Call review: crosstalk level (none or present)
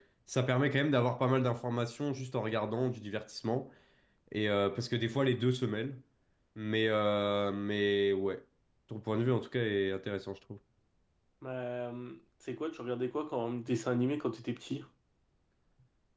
none